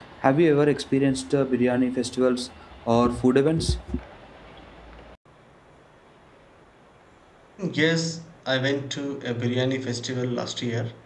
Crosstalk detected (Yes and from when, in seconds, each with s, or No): No